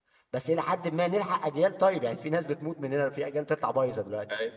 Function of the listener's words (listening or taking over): taking over